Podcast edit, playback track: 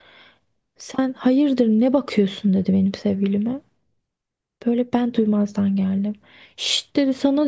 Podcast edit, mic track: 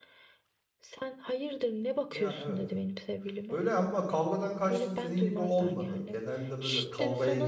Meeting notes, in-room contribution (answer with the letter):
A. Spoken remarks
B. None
A